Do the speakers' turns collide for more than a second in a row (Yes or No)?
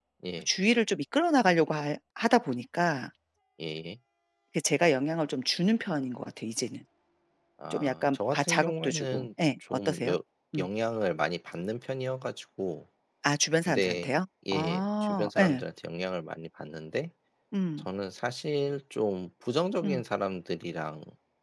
Yes